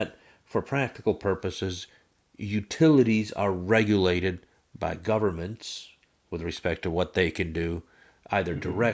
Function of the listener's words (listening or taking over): listening